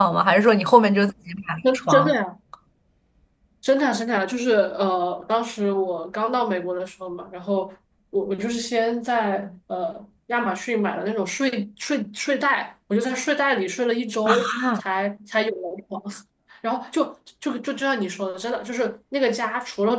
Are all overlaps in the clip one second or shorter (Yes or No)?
Yes